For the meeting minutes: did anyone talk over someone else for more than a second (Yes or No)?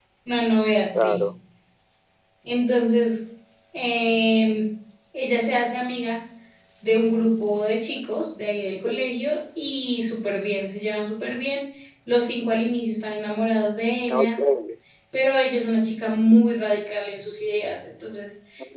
No